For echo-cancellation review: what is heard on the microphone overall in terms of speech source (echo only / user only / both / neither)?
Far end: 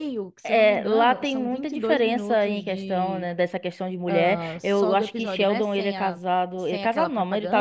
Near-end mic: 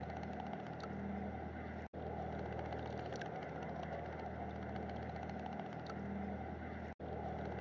neither